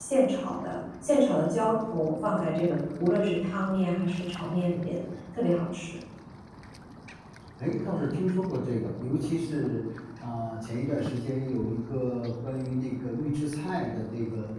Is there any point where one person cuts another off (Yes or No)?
No